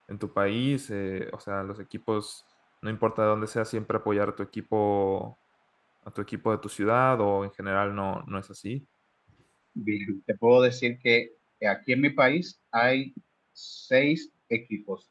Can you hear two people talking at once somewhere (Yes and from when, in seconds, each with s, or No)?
No